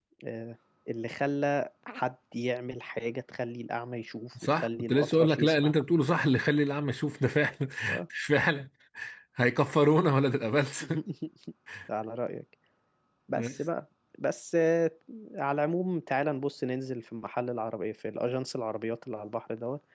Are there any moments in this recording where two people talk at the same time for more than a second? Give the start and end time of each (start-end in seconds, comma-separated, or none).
4.4-5.7